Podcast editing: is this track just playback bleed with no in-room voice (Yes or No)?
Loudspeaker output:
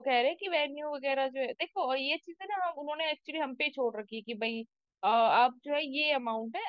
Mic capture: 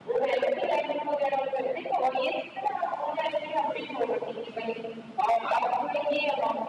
Yes